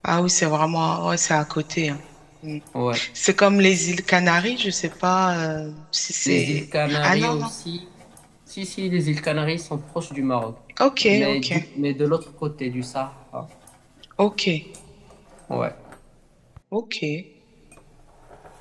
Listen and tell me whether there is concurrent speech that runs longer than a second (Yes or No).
Yes